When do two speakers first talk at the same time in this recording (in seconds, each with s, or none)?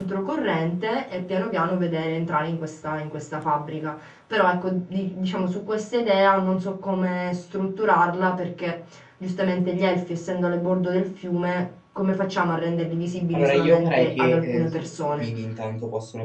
13.3 s